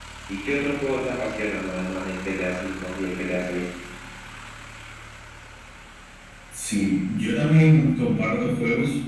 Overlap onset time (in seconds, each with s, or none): none